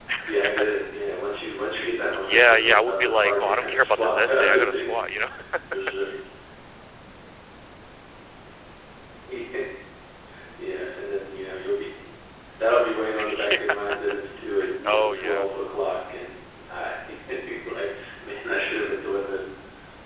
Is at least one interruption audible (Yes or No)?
Yes